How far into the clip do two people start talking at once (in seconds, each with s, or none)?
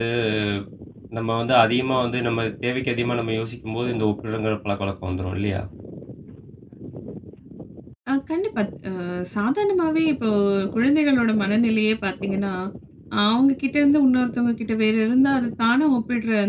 none